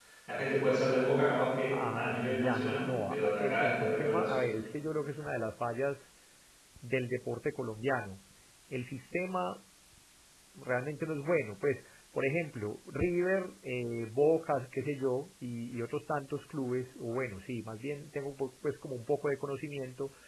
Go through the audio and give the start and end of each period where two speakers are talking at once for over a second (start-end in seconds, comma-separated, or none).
1.7-4.4